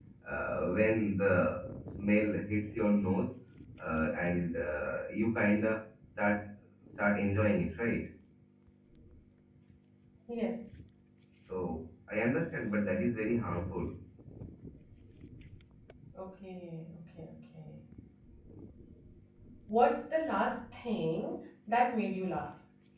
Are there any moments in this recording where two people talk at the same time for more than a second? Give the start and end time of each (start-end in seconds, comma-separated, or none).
none